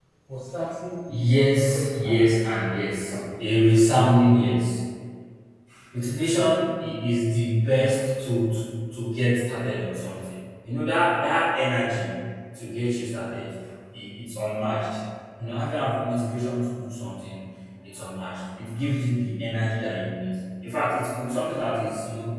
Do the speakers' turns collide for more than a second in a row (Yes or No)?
Yes